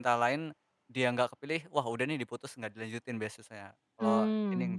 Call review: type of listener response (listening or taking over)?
taking over